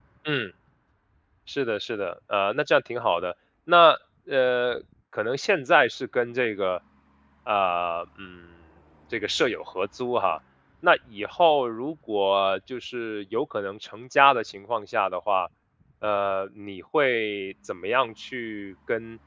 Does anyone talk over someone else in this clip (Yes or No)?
No